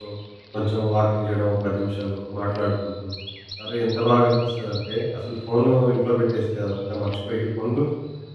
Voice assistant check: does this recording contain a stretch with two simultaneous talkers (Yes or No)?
No